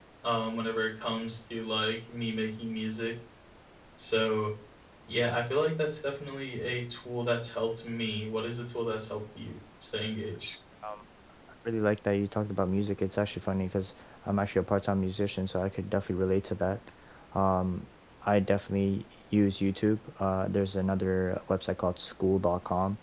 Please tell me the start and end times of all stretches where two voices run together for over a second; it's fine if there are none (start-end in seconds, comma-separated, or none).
none